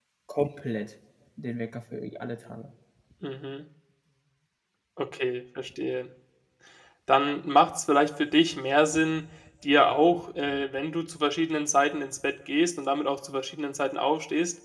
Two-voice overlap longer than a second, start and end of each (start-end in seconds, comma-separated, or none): none